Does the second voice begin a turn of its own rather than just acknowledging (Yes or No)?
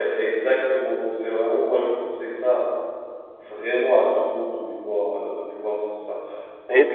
No